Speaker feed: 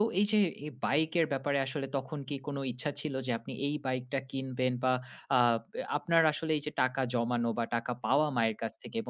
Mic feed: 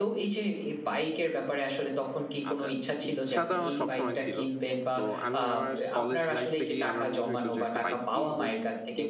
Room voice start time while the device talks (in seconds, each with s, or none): 2.5 s